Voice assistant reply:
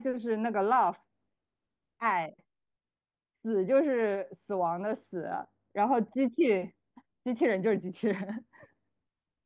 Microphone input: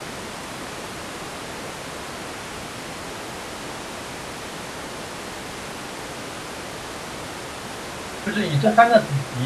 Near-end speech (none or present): present